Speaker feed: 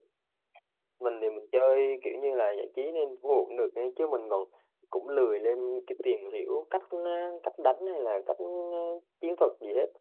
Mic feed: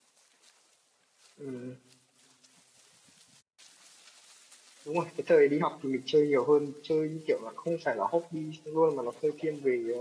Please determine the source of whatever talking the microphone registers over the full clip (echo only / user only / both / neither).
user only